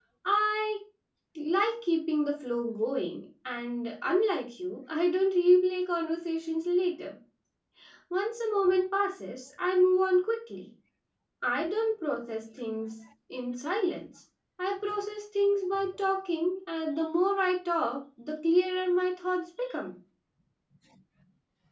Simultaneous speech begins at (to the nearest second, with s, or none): none